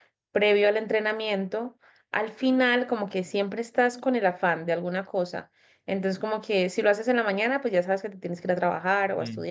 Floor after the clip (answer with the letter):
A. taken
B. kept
B